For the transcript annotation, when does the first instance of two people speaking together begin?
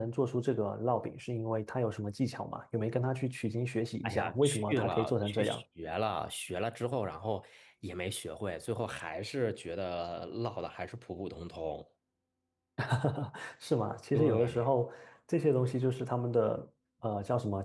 4.0 s

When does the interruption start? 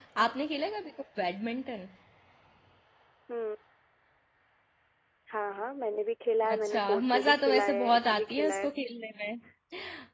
6.4 s

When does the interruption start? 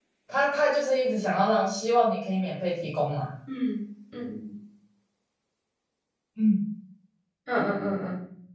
none

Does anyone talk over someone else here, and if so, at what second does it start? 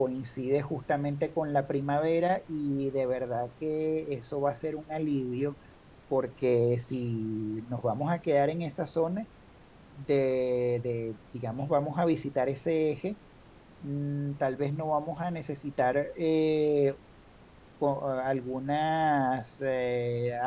none

